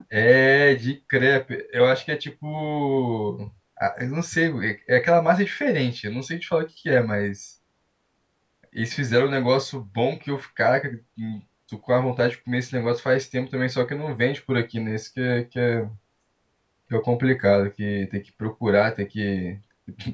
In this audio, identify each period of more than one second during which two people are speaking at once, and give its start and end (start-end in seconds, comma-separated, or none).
none